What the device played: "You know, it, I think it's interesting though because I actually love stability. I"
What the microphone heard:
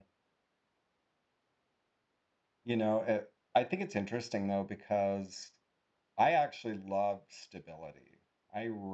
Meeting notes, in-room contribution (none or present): none